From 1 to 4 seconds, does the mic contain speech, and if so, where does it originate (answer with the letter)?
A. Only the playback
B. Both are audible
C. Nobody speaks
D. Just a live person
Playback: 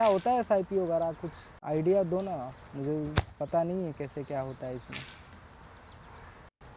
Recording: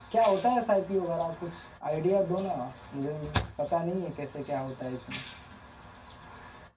A